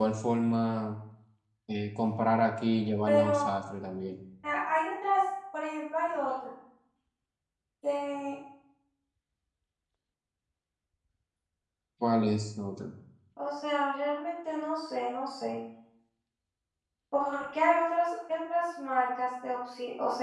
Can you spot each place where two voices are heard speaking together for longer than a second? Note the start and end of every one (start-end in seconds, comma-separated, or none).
none